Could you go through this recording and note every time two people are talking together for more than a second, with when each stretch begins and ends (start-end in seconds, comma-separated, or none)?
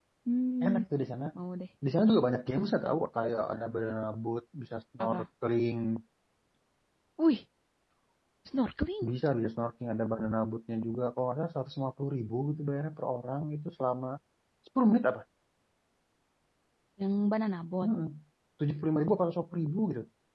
none